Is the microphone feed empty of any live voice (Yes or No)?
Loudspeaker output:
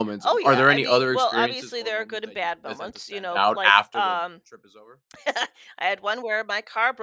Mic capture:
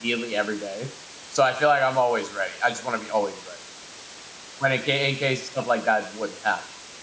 No